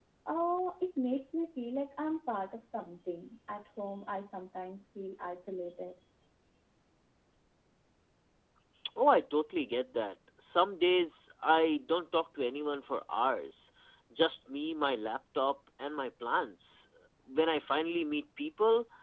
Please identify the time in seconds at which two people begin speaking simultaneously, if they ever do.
none

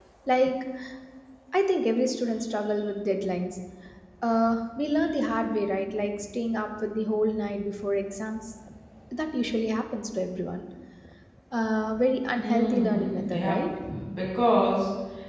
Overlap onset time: 12.4 s

